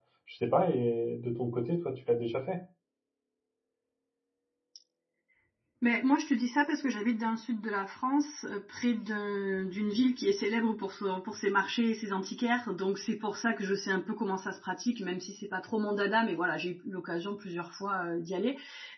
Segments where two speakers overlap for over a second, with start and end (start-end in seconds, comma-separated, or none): none